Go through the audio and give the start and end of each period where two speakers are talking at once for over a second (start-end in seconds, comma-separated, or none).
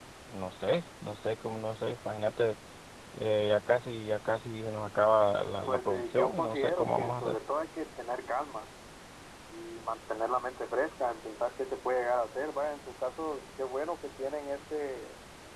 5.7-7.4